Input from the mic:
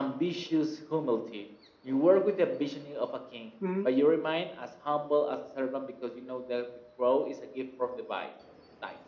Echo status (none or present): present